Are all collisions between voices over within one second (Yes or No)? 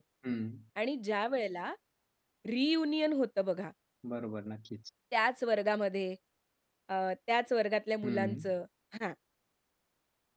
Yes